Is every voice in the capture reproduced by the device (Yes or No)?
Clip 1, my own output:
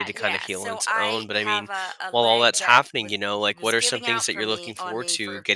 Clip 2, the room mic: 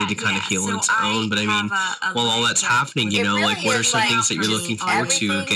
No